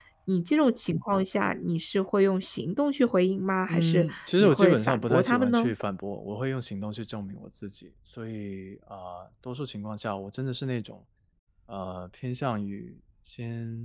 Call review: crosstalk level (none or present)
present